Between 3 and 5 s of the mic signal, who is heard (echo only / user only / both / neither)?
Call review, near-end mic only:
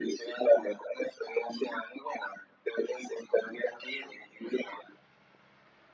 echo only